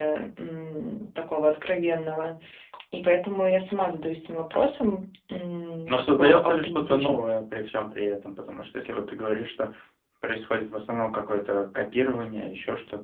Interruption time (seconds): 5.9 s

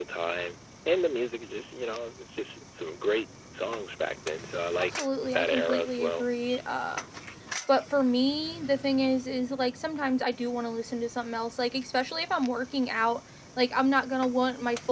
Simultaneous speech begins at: 4.7 s

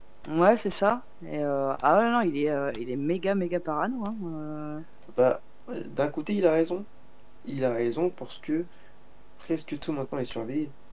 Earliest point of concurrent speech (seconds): none

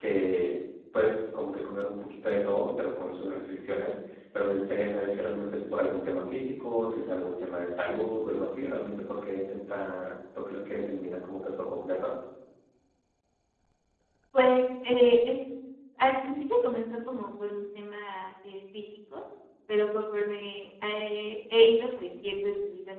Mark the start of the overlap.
none

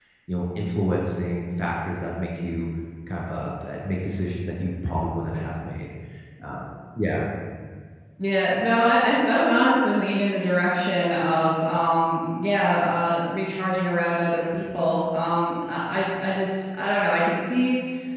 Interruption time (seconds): none

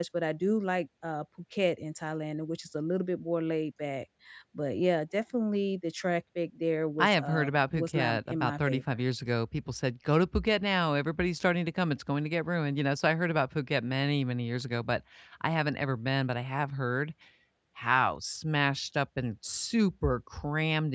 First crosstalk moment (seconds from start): 7.0 s

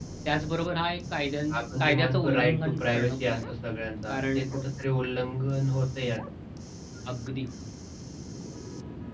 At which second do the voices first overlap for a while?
1.8 s

